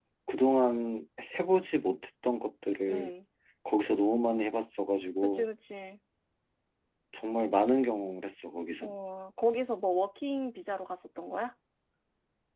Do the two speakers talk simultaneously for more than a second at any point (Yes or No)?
No